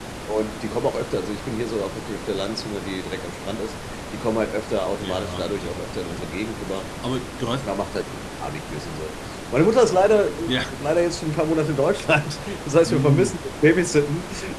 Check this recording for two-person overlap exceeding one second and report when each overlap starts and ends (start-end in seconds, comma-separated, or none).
5.0-6.3